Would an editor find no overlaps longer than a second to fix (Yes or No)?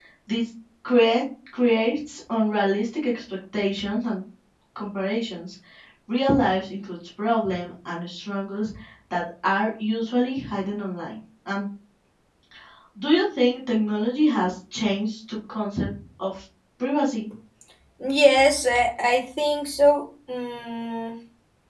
Yes